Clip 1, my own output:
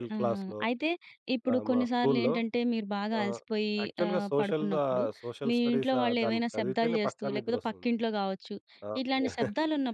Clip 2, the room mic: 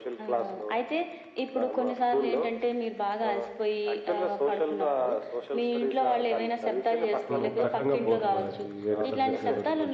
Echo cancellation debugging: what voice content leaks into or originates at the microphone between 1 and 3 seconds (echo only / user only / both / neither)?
echo only